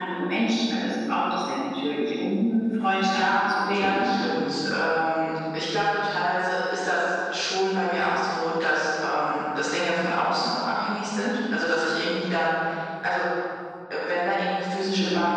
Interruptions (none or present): present